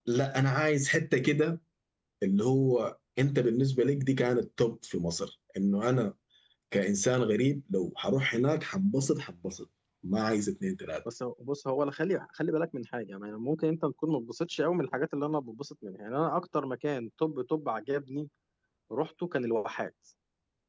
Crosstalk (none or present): none